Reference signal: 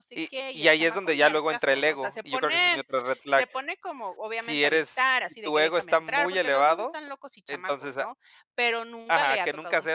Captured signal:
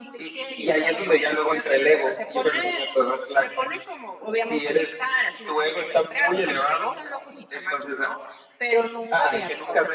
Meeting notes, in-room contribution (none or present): none